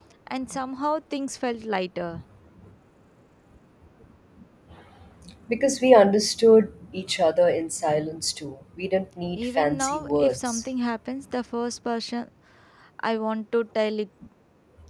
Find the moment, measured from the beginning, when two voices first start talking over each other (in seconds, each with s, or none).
9.4 s